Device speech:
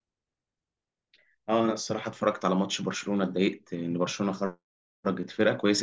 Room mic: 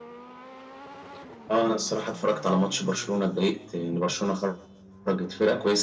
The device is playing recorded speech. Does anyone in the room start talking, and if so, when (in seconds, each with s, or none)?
none